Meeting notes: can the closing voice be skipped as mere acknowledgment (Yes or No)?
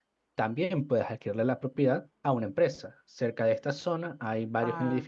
Yes